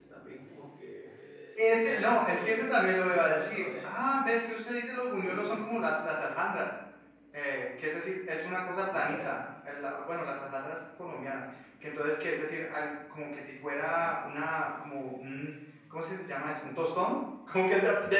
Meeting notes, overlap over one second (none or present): present